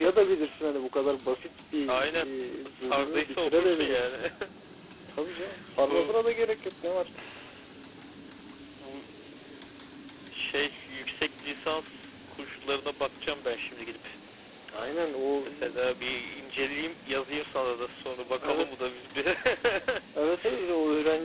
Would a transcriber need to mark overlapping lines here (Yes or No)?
Yes